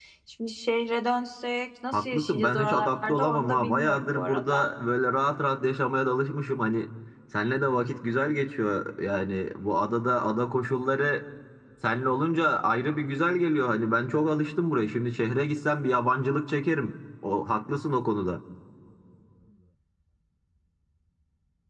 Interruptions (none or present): present